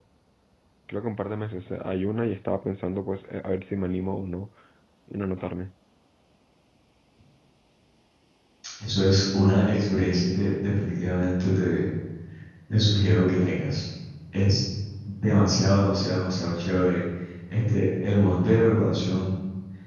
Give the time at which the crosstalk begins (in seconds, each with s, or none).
none